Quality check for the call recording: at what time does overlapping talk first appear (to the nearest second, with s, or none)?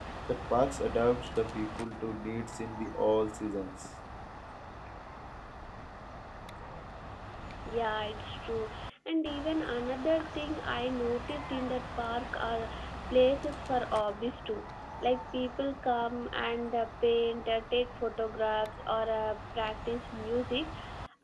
none